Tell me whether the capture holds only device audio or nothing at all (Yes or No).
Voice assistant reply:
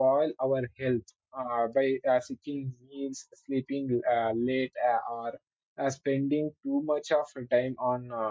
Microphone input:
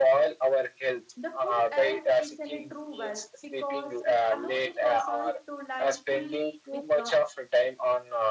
No